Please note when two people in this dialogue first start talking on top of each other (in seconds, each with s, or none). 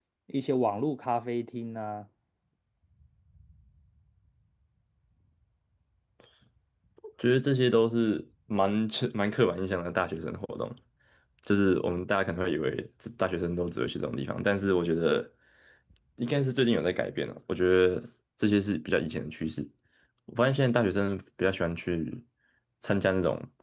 none